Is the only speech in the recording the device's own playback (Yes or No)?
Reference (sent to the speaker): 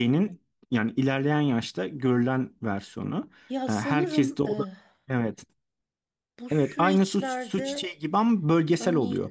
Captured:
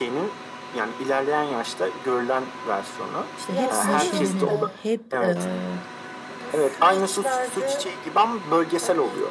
No